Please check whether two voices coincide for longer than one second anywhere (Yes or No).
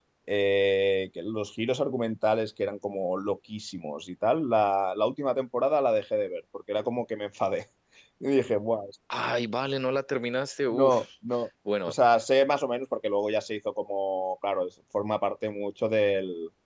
No